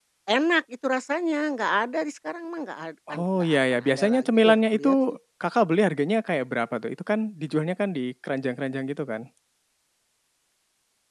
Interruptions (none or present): present